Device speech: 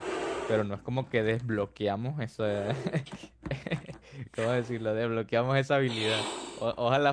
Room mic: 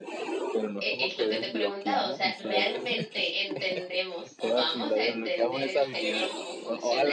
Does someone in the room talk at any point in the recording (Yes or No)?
Yes